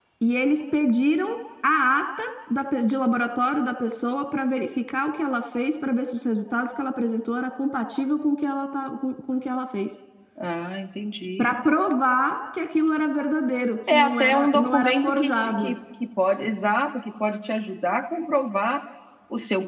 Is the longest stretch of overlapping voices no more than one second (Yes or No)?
No